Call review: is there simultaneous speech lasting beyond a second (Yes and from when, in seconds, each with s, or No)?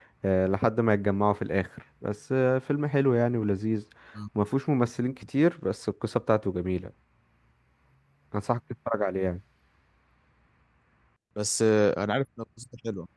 No